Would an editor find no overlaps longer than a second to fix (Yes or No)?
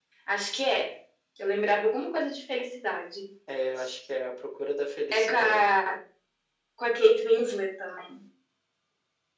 Yes